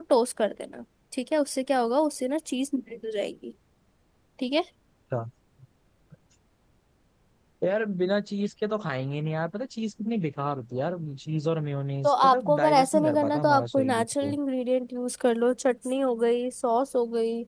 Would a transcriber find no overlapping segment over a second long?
No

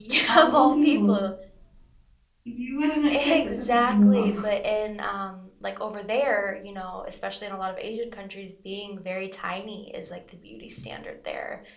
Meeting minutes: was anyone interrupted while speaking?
Yes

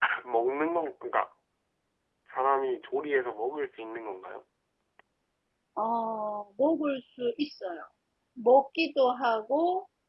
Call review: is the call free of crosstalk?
Yes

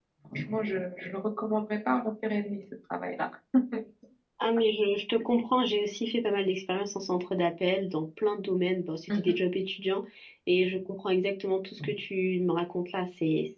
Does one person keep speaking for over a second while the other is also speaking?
No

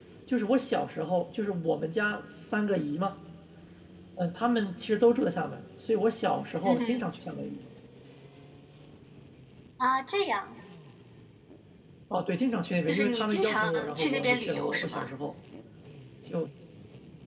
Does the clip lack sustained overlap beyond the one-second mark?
No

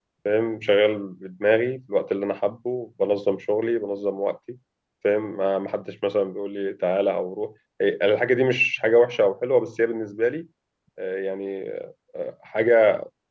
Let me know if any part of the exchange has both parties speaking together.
No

